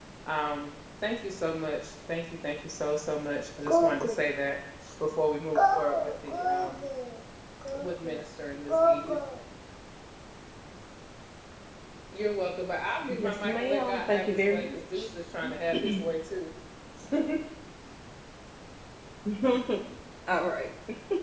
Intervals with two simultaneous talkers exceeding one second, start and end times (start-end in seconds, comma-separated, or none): 13.1-15.1